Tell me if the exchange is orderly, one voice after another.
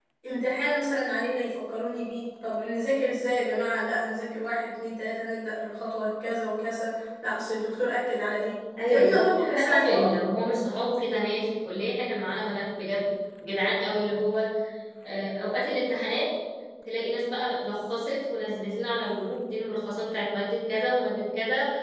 No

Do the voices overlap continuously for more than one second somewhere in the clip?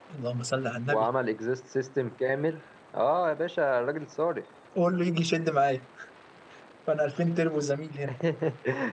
No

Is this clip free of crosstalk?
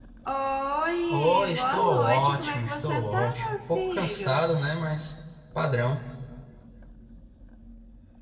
No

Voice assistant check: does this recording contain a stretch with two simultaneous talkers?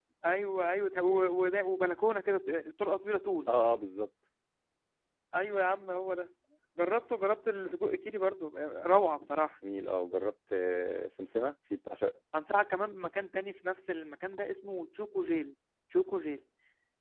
No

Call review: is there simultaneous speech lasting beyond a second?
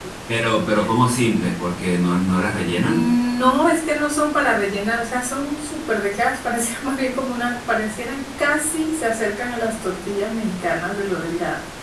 No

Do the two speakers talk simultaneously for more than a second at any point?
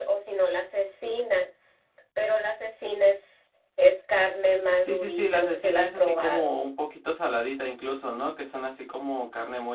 Yes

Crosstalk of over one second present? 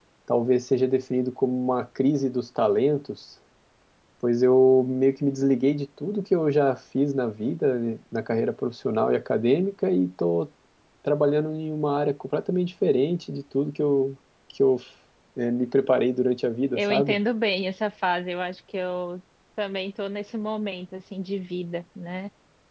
No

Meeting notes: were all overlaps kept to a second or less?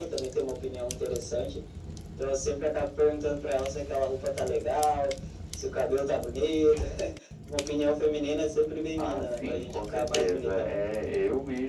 No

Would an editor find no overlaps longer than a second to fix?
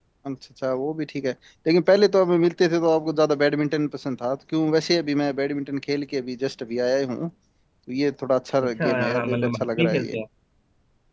No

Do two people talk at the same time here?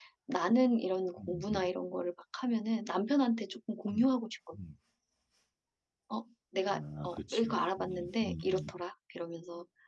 Yes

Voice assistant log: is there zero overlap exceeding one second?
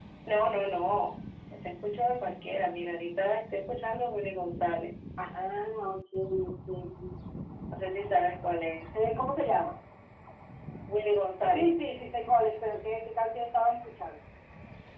Yes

